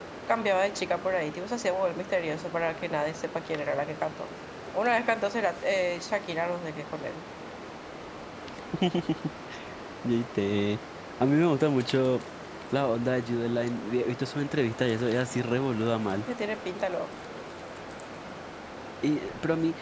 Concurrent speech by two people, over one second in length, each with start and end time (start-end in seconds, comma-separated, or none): none